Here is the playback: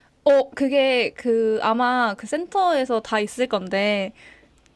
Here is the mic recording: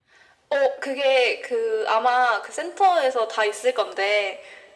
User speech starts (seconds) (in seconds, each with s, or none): none